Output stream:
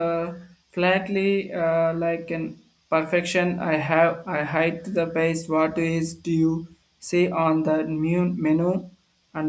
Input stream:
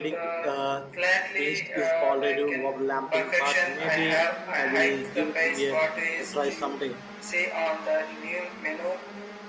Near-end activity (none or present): present